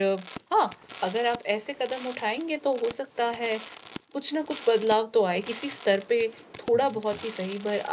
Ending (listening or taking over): listening